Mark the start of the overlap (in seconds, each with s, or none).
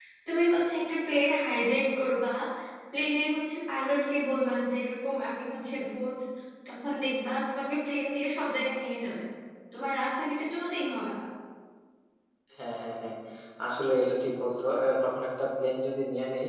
none